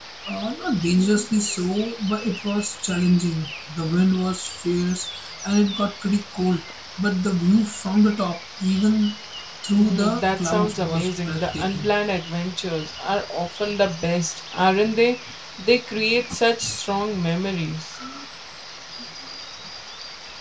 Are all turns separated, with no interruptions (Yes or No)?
No